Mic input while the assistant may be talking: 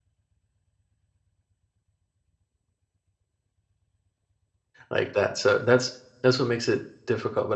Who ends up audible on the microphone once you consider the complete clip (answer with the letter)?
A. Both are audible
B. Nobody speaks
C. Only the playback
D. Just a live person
D